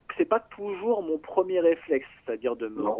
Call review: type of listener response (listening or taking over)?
listening